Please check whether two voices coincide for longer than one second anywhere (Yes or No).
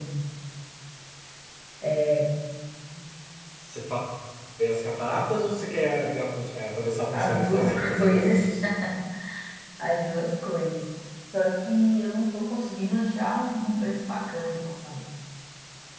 Yes